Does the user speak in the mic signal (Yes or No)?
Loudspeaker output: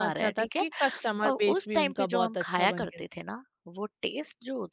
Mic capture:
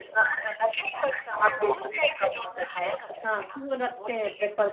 Yes